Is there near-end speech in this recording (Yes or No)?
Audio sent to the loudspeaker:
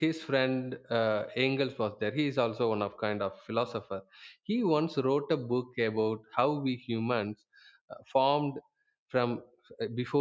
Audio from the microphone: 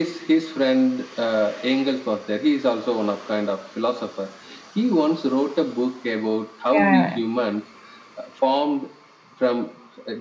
Yes